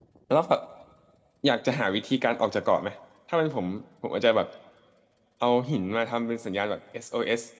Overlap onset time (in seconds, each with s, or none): none